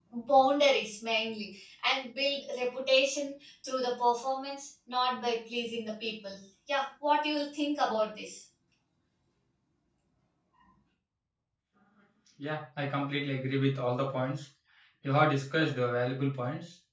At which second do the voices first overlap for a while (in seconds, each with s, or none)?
none